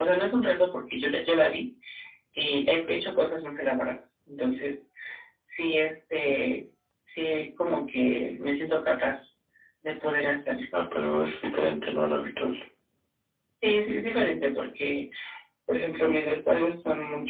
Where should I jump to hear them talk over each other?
none

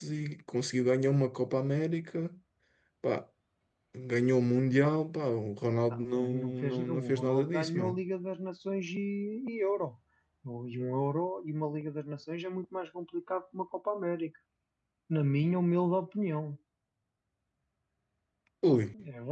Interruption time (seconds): 5.8 s

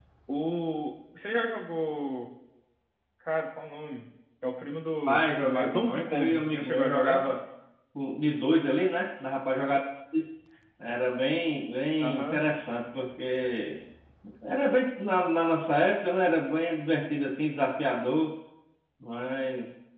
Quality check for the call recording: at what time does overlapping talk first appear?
5.1 s

